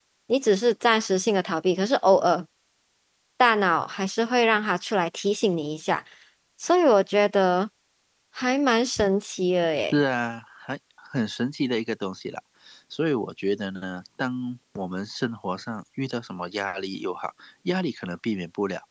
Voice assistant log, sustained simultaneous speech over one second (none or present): none